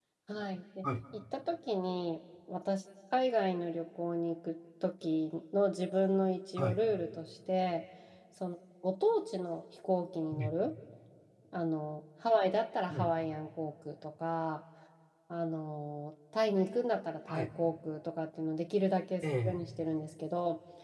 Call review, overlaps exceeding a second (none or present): none